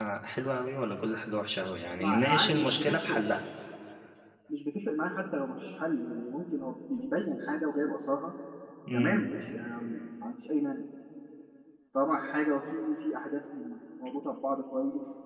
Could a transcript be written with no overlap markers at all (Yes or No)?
No